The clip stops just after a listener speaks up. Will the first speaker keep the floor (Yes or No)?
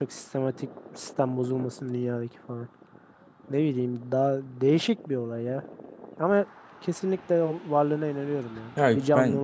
No